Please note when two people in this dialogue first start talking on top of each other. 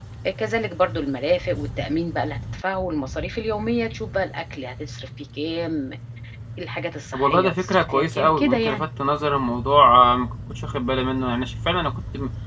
7.1 s

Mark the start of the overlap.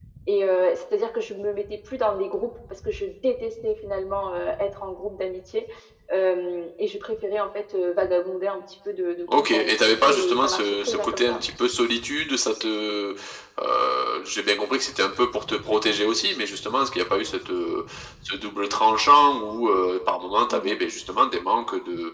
9.3 s

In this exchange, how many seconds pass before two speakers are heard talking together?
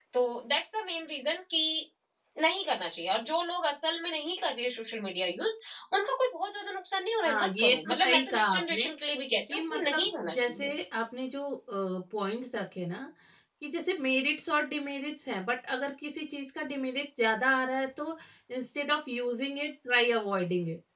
7.2 s

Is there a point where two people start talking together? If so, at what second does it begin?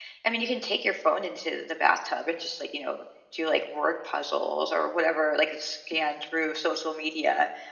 none

